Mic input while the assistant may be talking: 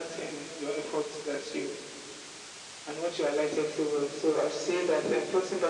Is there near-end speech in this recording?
No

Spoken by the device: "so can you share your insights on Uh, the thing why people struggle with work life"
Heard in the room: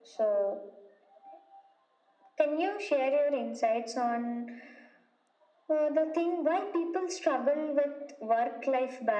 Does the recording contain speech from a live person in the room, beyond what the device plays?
No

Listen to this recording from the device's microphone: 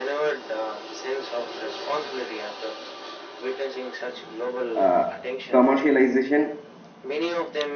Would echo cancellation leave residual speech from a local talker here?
Yes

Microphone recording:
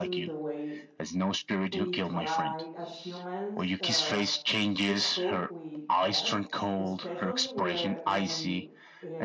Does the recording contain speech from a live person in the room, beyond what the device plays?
Yes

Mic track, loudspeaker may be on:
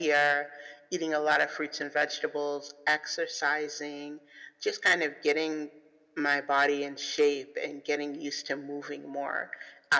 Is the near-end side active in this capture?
No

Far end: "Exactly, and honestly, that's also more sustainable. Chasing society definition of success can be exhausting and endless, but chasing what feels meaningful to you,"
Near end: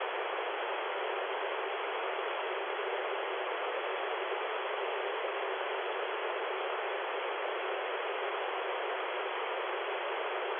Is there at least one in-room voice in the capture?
No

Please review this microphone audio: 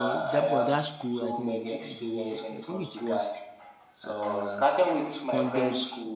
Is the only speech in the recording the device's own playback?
No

